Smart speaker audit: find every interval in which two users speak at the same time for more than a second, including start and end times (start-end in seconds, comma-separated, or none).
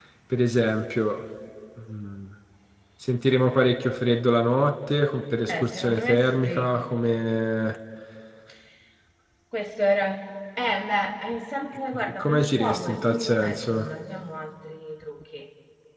5.5-6.7, 11.9-13.9